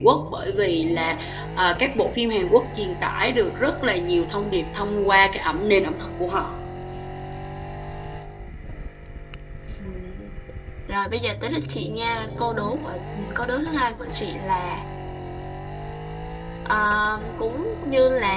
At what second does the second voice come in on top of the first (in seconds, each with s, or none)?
none